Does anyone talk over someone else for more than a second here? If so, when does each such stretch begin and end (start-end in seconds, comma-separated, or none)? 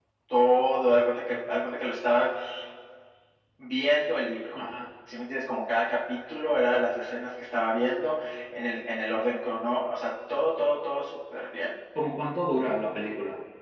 none